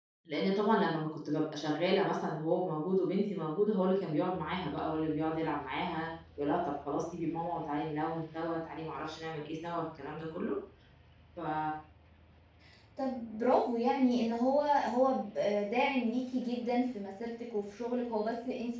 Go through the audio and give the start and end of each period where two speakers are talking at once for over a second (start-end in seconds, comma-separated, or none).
none